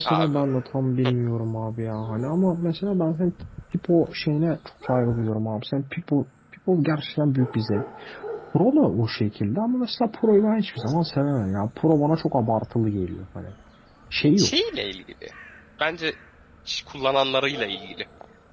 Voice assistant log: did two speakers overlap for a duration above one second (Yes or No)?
No